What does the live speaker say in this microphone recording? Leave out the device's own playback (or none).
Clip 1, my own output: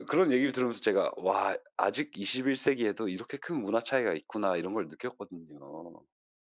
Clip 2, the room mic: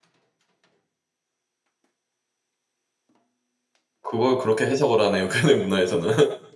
그걸 그렇게 해석을 하네요. 걔네 문화에서는.